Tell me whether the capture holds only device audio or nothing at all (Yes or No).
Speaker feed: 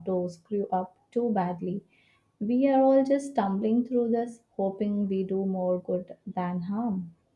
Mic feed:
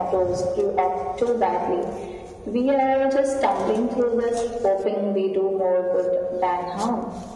Yes